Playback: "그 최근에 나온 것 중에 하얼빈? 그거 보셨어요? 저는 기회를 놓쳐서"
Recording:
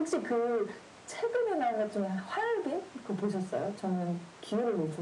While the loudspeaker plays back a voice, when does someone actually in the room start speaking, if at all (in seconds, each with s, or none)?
none